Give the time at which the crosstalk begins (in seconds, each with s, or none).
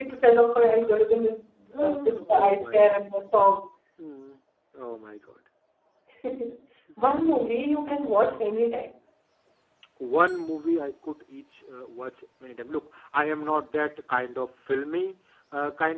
1.8 s